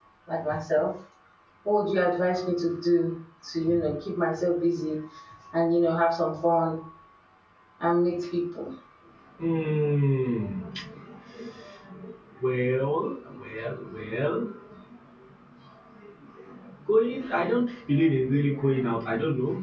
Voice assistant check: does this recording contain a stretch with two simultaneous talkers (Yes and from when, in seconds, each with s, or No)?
No